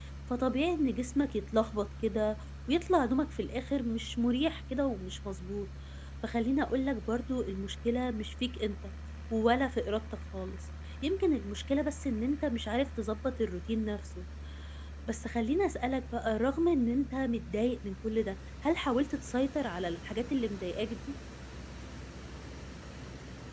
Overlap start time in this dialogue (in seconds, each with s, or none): none